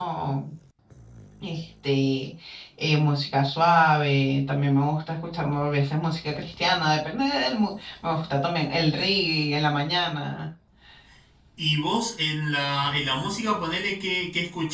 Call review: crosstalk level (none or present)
none